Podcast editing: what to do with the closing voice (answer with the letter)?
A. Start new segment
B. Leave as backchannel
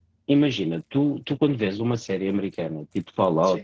B